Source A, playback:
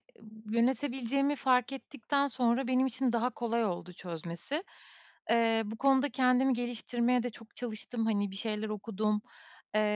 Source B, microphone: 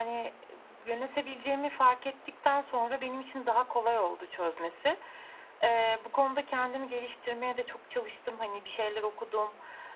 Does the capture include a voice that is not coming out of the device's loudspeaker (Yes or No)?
No